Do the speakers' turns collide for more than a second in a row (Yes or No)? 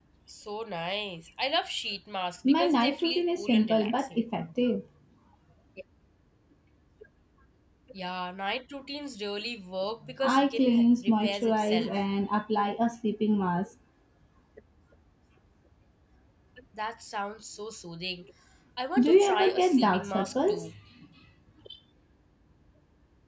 Yes